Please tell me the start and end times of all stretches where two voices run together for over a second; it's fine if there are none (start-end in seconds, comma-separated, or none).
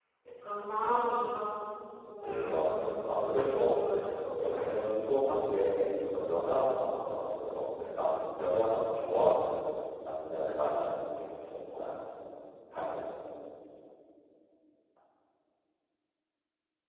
2.2-3.8